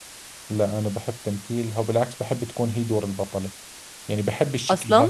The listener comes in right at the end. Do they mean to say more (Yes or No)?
Yes